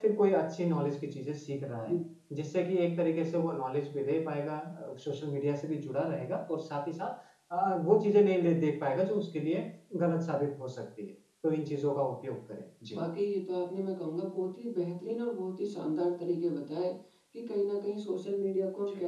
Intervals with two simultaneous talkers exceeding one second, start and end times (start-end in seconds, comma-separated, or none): none